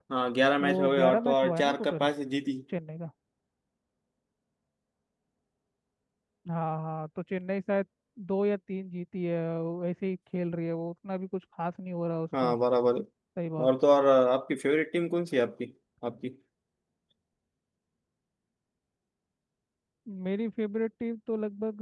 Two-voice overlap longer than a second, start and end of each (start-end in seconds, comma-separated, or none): 0.6-2.1